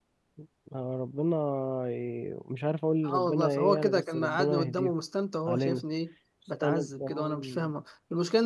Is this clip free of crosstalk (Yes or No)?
No